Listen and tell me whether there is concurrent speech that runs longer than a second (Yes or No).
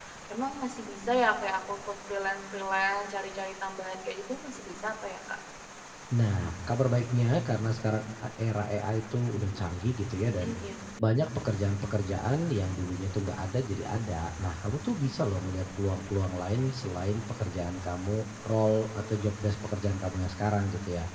No